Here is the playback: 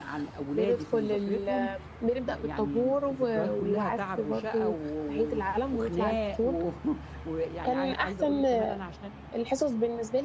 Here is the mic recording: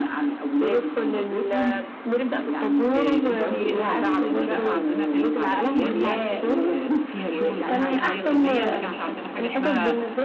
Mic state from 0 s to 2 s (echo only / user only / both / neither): echo only